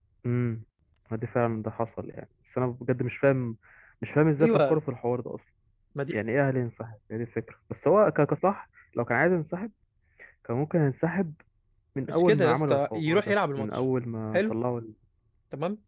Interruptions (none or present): present